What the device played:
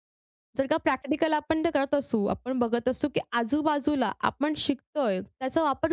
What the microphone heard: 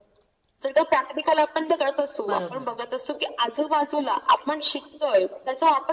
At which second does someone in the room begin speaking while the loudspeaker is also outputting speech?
2.3 s

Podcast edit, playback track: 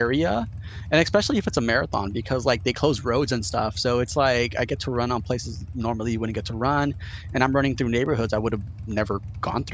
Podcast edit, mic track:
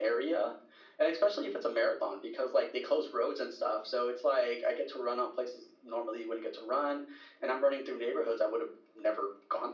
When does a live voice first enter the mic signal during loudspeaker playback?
none

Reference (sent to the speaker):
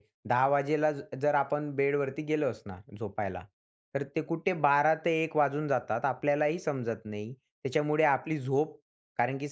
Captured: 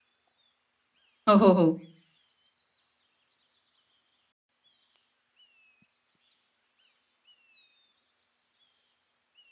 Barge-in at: 1.3 s

